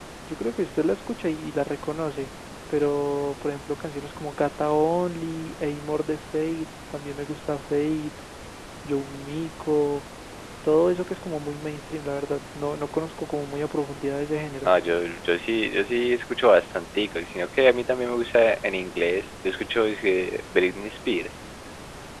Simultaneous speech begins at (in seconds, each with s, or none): none